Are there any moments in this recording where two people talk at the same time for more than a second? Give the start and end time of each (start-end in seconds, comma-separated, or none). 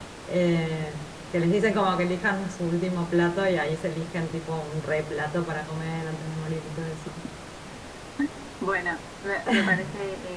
none